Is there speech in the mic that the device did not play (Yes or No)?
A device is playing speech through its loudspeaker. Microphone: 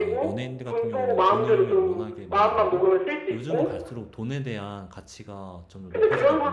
Yes